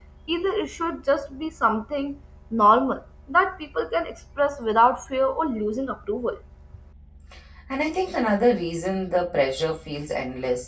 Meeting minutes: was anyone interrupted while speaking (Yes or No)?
No